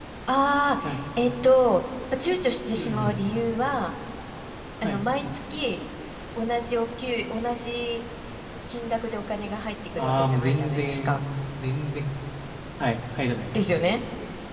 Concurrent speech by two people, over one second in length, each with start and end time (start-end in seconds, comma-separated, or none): 10.0-11.2